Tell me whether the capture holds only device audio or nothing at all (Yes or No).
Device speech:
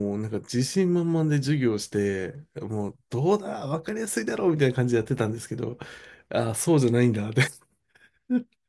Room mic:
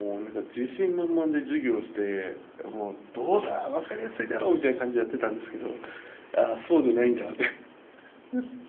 Yes